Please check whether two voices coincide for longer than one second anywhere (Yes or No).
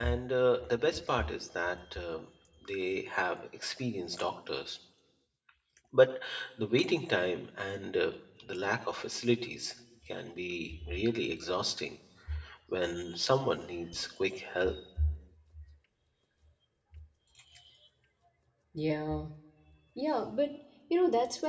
No